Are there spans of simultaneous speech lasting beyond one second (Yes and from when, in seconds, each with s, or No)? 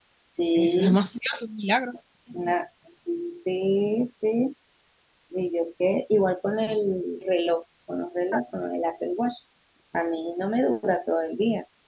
No